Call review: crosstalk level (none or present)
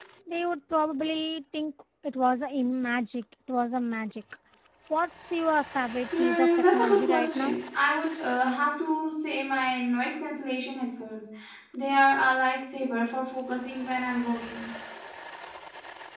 present